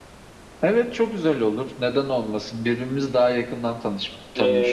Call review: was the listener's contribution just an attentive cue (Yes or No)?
No